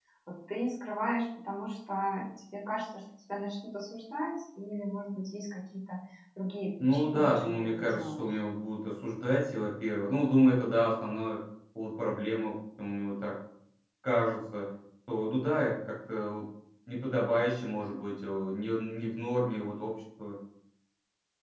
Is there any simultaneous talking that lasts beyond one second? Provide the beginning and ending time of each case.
6.9-8.4

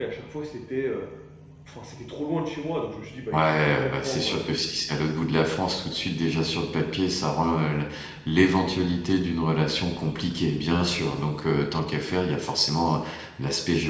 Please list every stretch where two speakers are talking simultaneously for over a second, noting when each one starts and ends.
3.3-4.7

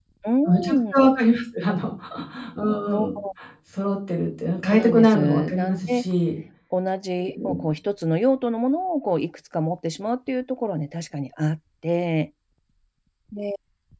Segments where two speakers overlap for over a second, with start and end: 4.7-6.0

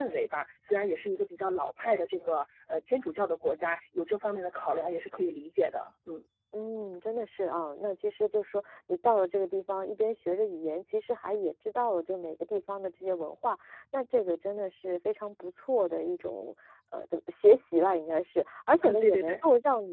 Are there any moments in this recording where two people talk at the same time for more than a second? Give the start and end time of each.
none

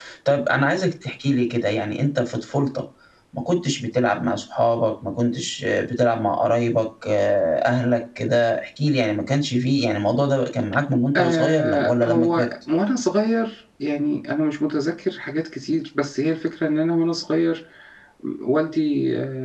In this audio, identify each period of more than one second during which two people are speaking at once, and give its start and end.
11.2-12.4

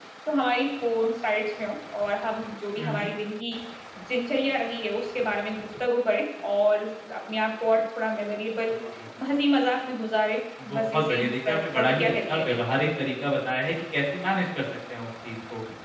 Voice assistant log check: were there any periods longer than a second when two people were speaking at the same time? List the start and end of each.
10.8-12.6

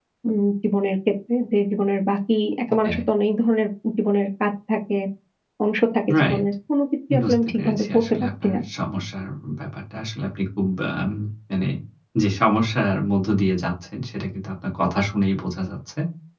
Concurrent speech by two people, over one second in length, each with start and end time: 7.2-8.6

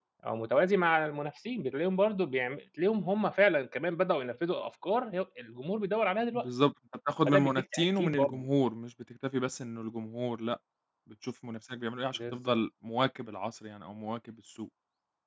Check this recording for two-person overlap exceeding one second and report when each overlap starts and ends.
7.2-8.5

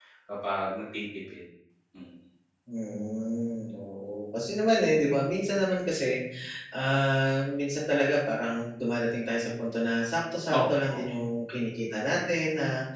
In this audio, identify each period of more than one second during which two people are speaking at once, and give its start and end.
none

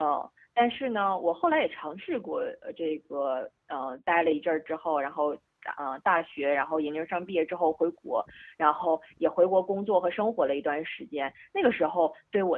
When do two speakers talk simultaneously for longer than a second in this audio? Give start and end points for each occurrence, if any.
none

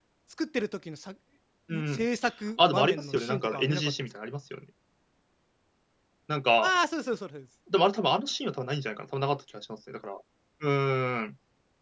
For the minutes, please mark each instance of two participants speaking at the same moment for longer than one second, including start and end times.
2.7-3.9

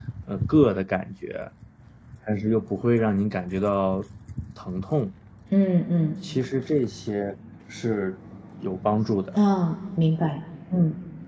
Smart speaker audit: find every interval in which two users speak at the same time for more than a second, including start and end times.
none

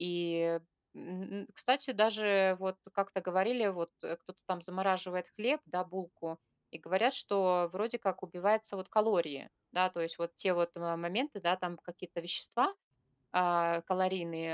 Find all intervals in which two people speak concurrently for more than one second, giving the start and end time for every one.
none

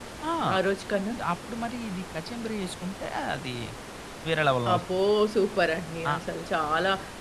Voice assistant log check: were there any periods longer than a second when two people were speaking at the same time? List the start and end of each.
none

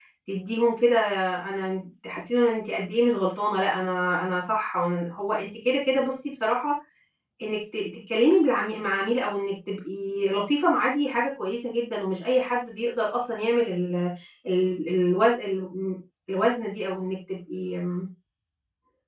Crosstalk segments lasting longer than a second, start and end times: none

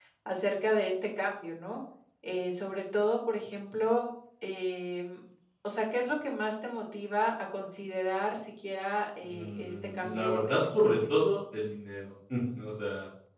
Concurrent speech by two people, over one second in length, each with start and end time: 9.2-11.1

